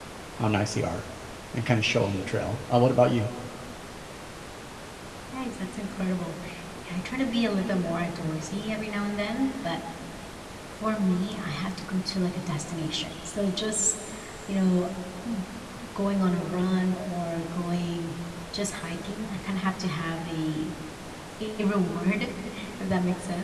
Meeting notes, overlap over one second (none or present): none